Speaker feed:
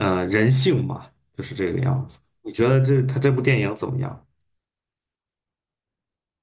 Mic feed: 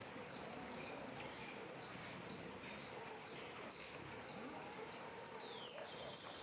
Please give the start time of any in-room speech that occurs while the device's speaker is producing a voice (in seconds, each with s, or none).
none